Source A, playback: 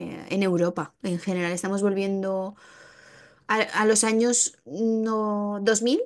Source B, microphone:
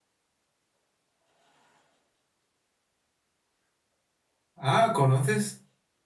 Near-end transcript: Ah, ¿conoces?

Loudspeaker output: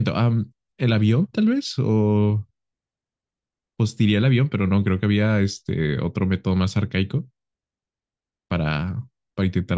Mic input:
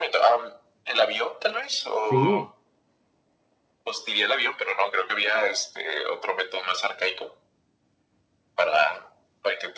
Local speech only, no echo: sí.

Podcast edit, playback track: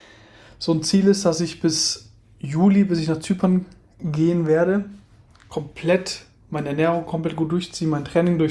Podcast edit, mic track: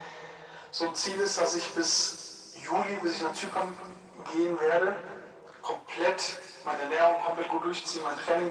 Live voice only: none

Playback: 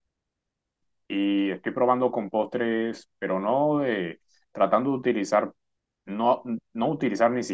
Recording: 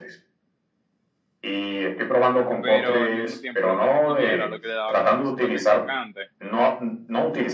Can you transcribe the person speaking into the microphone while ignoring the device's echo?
Pero al mismo tiempo, la mantequilla era lo que le daba como ese toque crocante.

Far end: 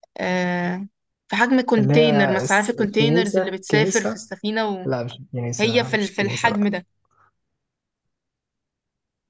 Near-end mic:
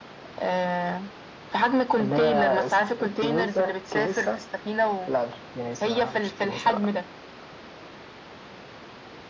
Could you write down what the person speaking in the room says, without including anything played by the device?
none

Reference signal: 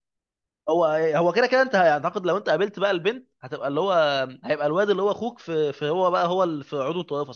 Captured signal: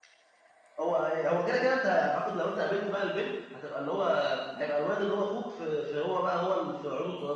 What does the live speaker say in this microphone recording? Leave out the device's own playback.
none

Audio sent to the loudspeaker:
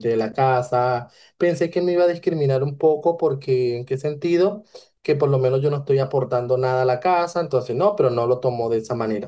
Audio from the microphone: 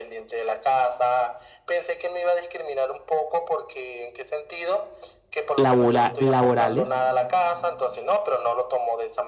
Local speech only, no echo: labora- laborales

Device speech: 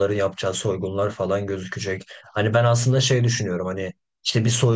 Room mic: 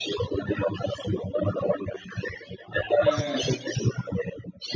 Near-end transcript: He,

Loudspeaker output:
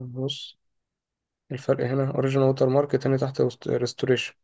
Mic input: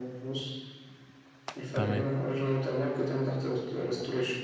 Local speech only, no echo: تمام

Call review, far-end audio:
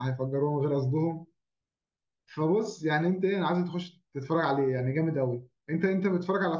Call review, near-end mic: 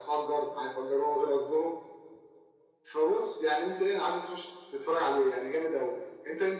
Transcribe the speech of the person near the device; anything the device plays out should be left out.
none

